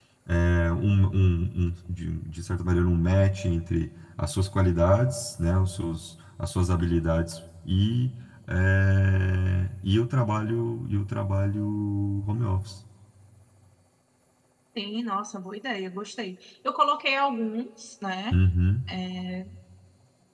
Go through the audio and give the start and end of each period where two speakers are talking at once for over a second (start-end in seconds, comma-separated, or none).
none